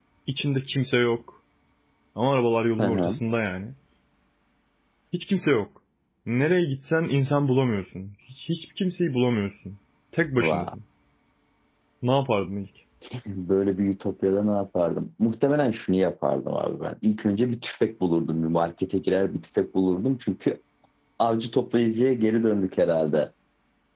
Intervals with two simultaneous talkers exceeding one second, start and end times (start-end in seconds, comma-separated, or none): none